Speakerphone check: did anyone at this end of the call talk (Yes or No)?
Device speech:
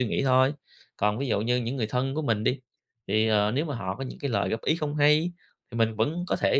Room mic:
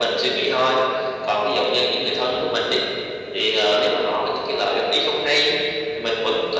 No